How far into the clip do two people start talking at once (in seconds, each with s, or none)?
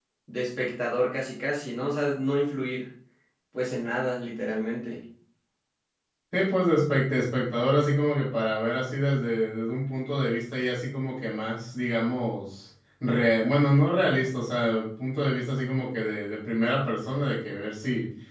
none